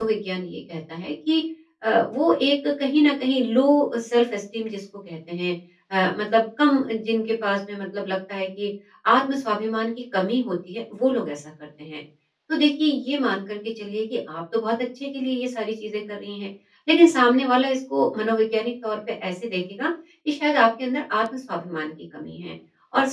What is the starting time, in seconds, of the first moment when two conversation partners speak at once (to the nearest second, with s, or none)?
none